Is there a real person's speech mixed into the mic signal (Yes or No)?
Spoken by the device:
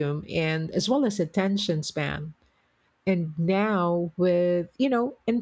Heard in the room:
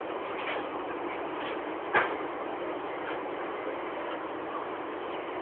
No